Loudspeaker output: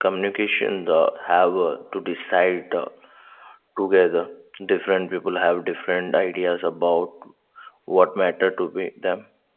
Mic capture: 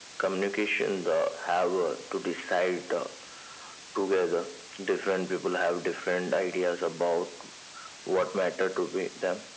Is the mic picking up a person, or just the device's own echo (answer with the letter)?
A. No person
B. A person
A